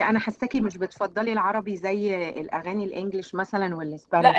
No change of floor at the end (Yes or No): No